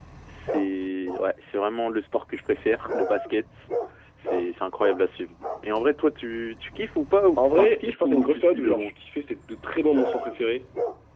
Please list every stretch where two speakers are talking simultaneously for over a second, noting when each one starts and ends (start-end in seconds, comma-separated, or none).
7.4-8.9